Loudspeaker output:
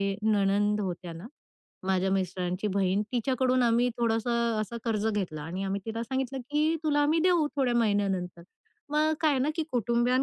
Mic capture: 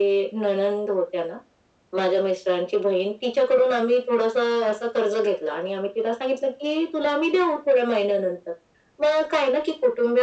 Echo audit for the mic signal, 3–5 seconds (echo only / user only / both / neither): echo only